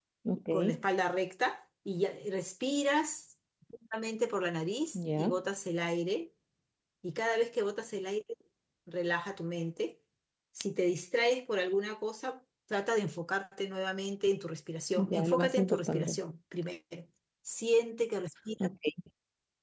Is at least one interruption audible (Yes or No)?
Yes